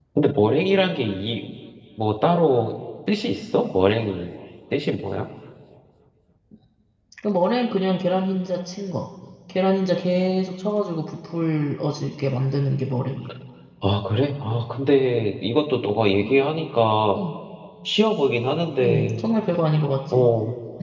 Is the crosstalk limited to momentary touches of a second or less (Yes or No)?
Yes